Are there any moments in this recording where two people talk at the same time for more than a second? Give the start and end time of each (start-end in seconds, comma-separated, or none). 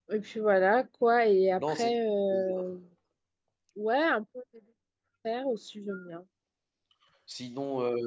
none